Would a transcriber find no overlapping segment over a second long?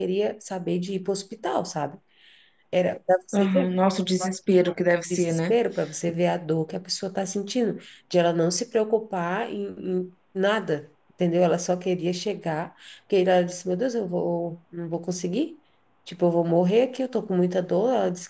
Yes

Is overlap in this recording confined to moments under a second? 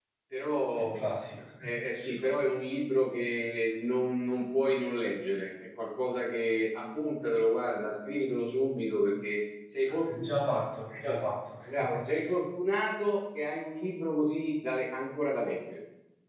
Yes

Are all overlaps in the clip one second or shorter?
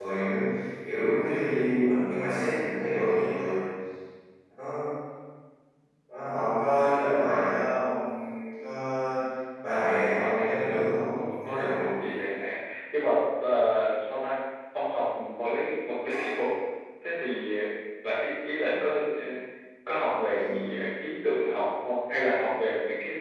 No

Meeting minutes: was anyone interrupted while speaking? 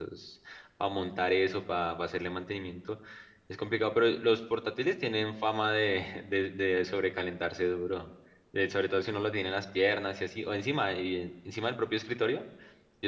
No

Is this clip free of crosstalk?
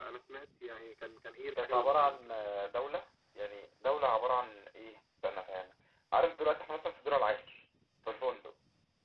No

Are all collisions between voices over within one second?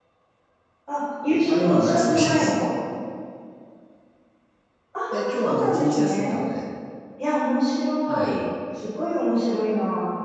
No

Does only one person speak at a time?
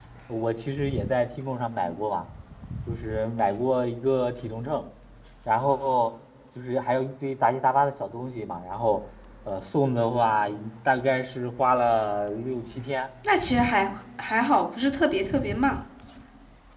Yes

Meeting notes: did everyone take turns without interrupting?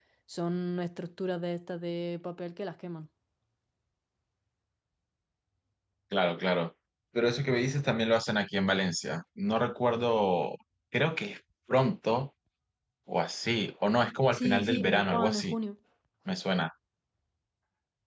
No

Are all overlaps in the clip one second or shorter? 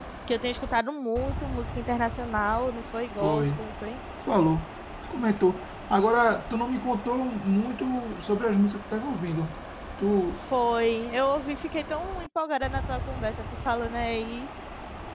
Yes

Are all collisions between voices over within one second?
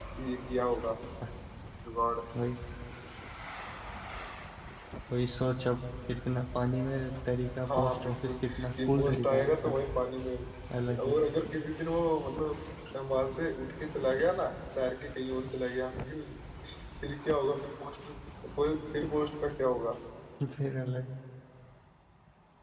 No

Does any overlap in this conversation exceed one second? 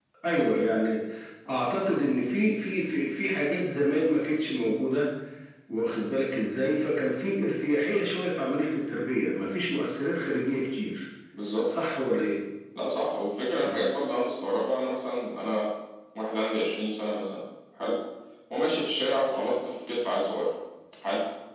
No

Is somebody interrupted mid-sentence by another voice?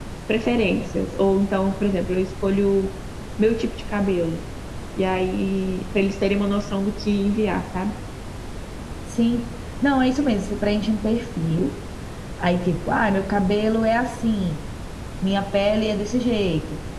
No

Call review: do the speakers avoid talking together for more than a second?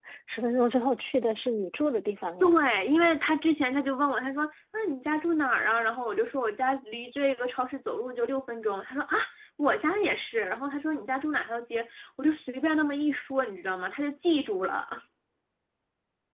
Yes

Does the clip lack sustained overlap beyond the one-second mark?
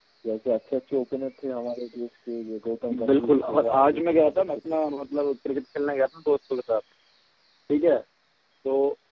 No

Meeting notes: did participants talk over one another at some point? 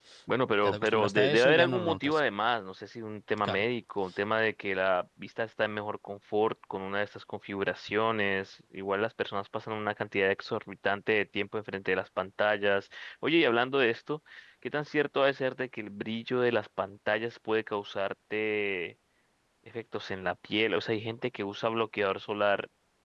Yes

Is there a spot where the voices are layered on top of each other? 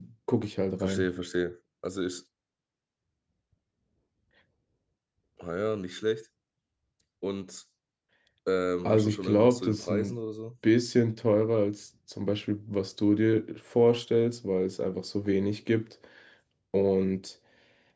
Yes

